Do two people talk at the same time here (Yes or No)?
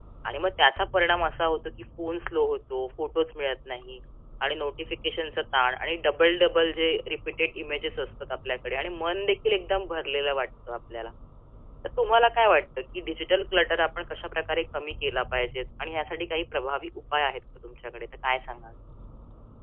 No